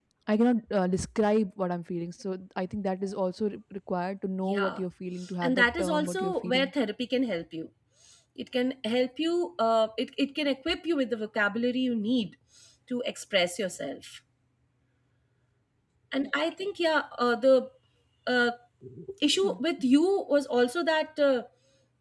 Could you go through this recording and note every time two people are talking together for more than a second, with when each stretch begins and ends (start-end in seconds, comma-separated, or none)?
5.4-6.7